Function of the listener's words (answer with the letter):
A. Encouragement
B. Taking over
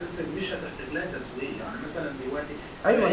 B